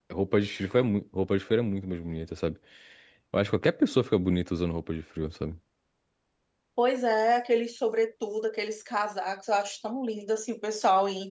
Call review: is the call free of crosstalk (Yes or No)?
Yes